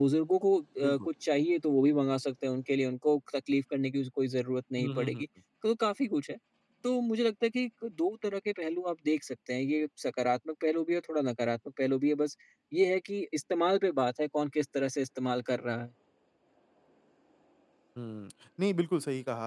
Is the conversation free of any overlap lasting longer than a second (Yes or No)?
Yes